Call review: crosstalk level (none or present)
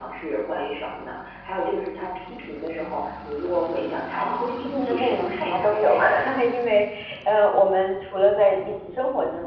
present